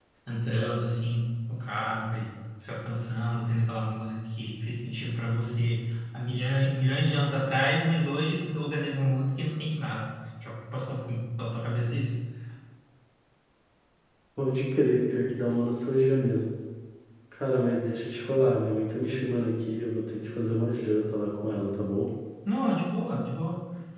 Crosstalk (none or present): none